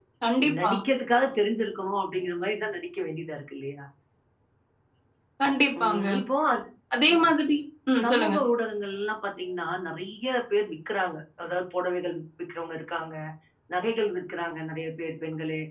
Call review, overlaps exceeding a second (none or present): none